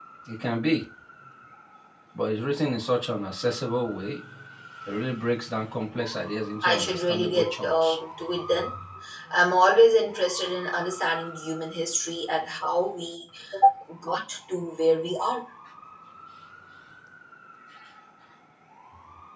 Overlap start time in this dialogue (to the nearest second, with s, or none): 7 s